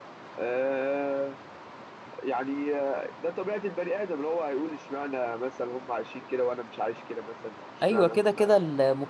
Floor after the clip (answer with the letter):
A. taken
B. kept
A